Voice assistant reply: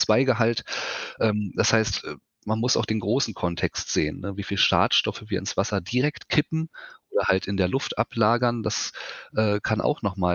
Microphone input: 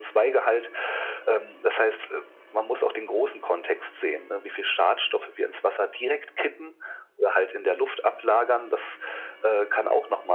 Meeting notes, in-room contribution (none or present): none